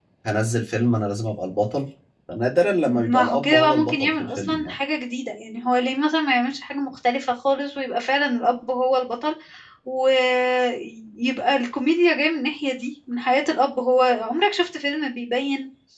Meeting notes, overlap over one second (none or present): present